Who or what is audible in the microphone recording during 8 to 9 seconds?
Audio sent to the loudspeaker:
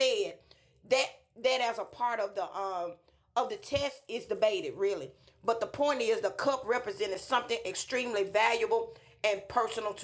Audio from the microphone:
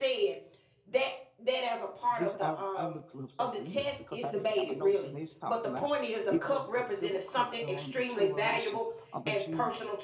both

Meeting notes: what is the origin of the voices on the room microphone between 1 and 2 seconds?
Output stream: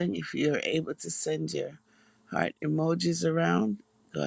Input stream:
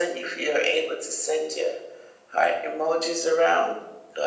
echo only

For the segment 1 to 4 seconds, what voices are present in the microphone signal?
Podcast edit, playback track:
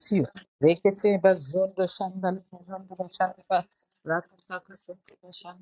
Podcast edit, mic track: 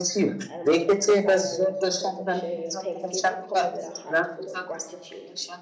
both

